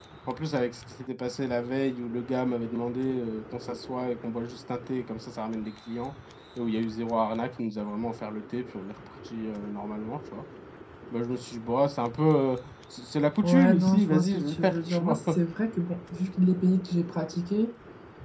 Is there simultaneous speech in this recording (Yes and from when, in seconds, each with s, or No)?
Yes, from 13.4 s